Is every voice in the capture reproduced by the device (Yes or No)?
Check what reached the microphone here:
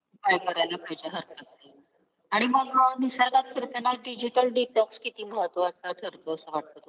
Yes